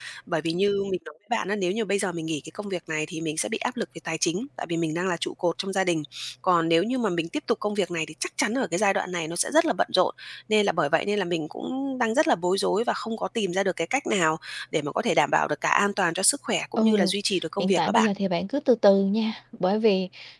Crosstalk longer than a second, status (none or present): none